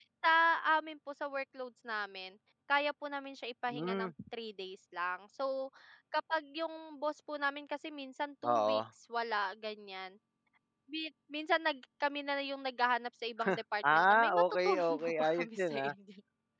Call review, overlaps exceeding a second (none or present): present